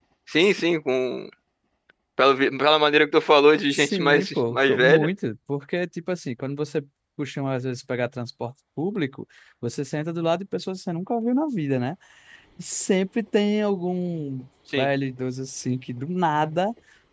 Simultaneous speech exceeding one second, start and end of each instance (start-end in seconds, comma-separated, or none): 3.7-5.1